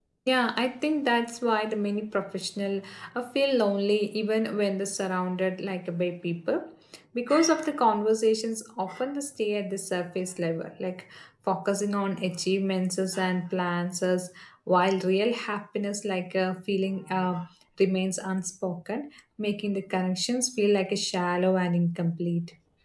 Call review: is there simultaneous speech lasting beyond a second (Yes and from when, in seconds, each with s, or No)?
No